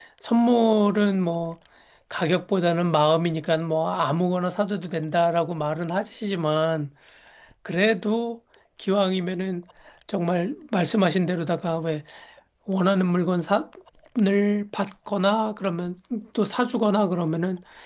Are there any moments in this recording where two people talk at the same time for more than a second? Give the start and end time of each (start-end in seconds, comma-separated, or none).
none